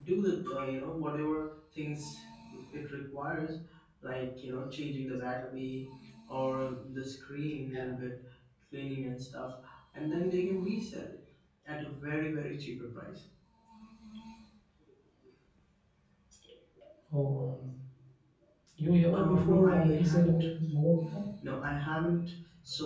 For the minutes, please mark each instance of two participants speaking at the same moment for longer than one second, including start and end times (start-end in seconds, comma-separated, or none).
19.1-20.4